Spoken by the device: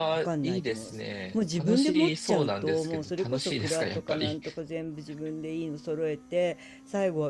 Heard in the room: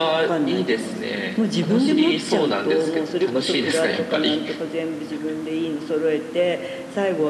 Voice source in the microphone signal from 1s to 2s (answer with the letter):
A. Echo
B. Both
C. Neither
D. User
A